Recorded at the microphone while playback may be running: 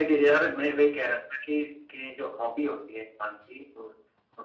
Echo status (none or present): present